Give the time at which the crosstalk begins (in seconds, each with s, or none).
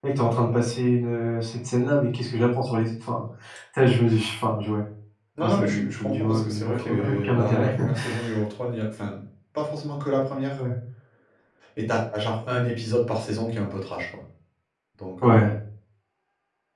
5.4 s